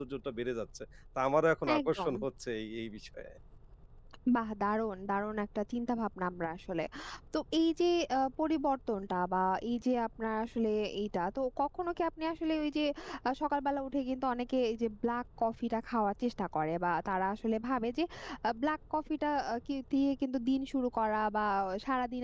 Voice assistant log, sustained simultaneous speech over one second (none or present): none